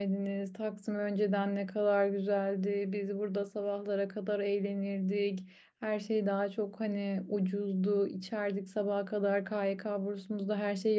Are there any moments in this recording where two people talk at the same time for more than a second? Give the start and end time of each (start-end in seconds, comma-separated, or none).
none